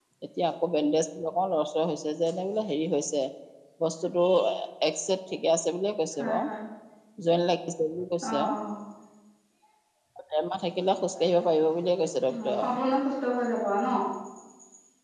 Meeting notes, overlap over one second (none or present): none